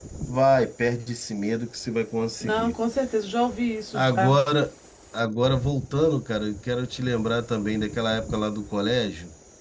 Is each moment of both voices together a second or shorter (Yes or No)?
Yes